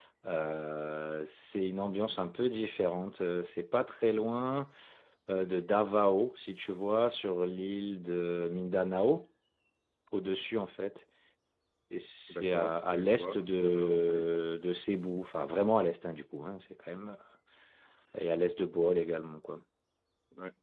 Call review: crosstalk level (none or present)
present